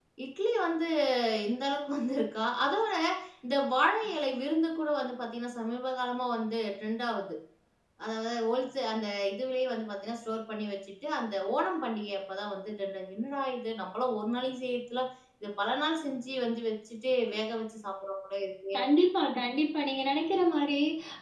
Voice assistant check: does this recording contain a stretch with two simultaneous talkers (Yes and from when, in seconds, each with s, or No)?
No